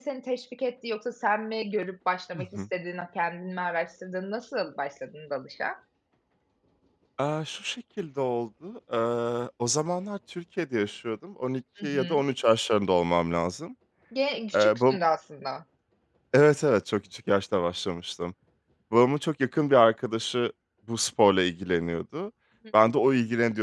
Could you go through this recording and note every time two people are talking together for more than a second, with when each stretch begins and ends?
none

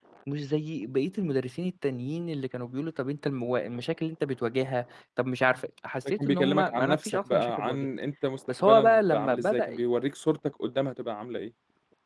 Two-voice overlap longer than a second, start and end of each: 6.0-7.9, 8.6-9.8

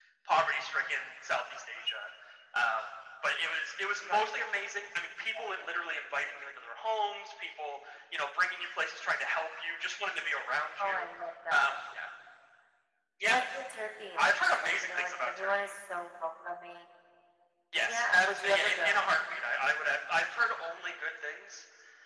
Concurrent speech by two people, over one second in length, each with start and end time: 14.2-15.7, 17.9-19.1

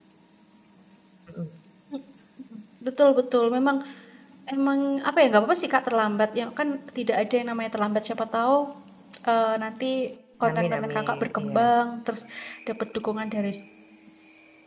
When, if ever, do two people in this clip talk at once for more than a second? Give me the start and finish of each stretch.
10.4-11.7

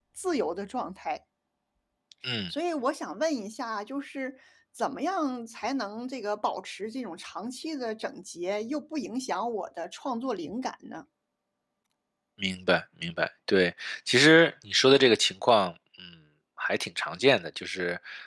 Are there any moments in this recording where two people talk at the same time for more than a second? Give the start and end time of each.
none

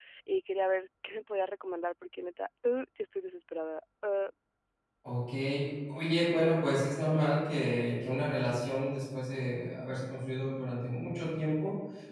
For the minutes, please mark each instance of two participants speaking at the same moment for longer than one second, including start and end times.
none

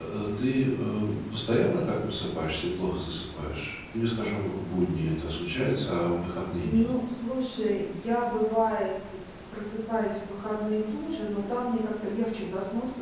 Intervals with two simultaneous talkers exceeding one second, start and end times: none

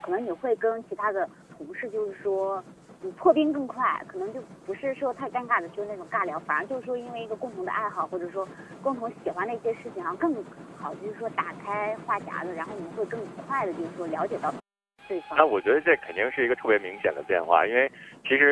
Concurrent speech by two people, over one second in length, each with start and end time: none

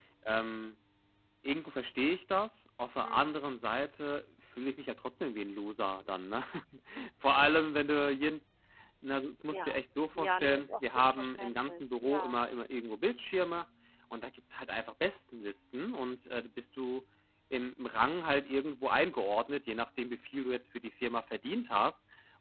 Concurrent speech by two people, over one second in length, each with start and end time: 10.1-12.4

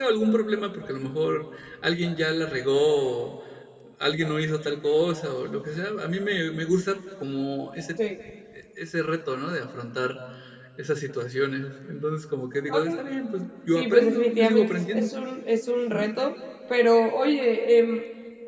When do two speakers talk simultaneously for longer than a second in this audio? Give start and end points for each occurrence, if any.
13.8-15.1

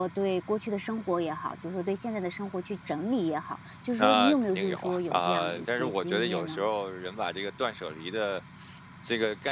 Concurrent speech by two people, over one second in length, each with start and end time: 3.9-6.7

